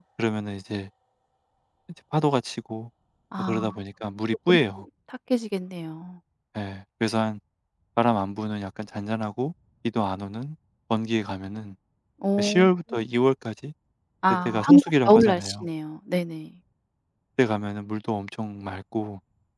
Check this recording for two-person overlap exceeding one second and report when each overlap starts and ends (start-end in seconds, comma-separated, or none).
14.3-15.7